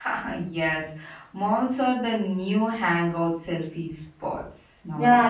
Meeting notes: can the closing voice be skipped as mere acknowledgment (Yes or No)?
No